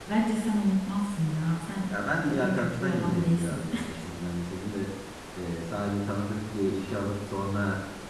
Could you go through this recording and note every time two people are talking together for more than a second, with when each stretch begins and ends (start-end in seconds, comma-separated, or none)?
1.9-3.6